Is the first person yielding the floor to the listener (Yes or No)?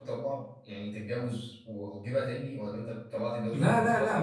Yes